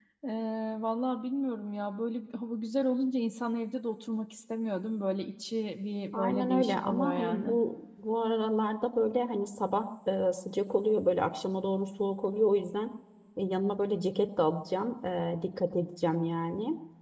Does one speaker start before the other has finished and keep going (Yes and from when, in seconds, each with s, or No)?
Yes, from 6.1 s